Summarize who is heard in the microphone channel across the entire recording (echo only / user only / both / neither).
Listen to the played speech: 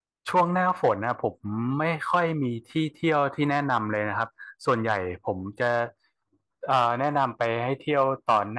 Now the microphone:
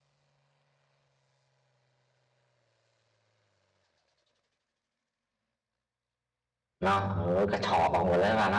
user only